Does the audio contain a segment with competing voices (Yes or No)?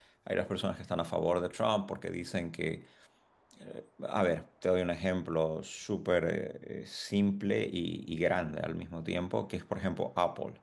No